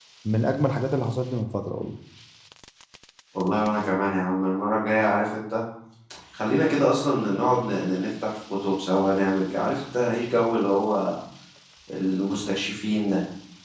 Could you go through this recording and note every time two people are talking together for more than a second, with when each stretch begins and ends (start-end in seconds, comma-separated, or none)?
none